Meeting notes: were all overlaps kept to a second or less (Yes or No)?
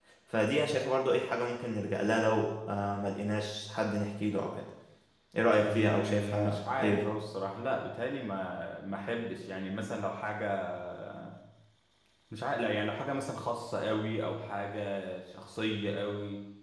No